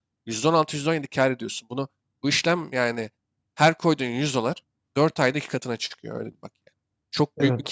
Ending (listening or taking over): taking over